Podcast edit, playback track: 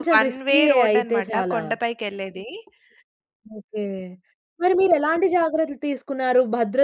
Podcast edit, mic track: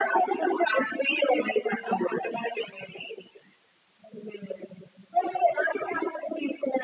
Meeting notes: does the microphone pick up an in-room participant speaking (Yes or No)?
No